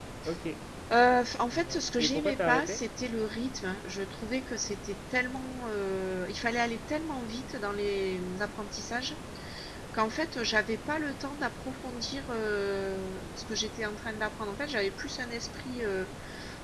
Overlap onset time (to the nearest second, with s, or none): 2 s